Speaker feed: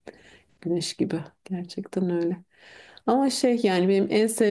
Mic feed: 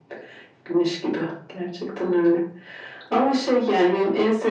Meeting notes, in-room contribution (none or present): none